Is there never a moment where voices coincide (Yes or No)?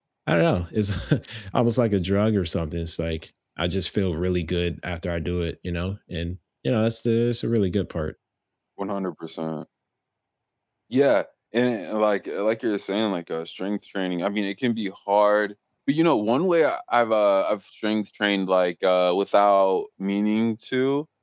Yes